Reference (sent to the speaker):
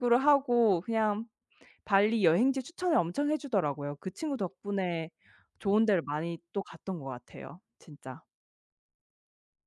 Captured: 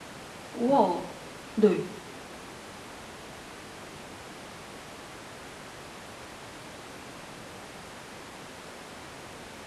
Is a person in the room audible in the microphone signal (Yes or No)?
Yes